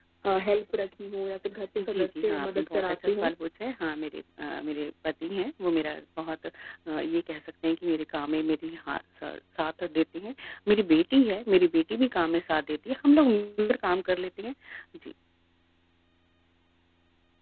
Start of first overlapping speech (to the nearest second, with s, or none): 2 s